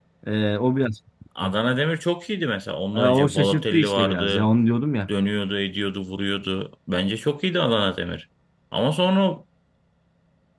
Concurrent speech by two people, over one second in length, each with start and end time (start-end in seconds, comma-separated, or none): 2.9-4.5